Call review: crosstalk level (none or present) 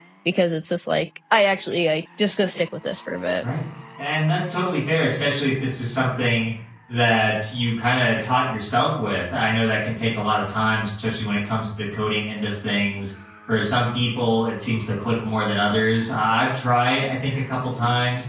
none